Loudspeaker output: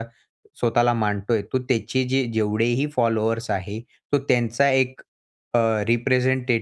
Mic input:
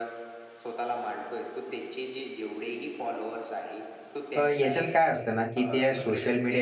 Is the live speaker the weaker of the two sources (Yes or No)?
No